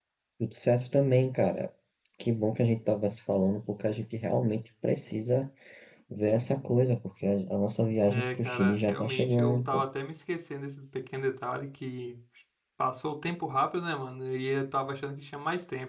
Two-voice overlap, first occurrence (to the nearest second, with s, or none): 8 s